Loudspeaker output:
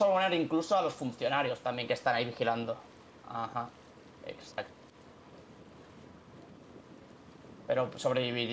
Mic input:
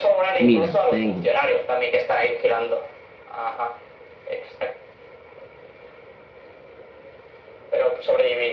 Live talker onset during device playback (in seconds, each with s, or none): 0.4 s